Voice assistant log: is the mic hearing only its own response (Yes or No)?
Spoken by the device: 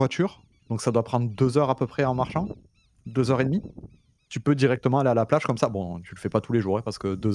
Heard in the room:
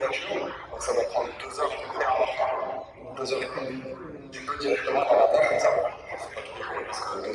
No